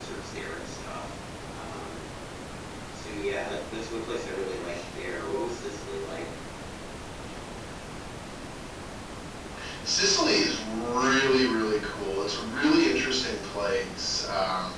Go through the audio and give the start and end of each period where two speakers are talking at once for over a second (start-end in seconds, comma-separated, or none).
none